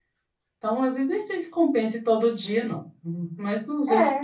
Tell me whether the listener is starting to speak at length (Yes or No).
Yes